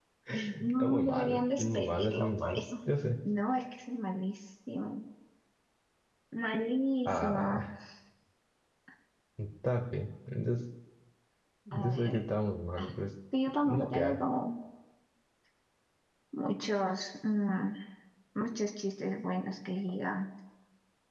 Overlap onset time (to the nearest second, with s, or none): 1 s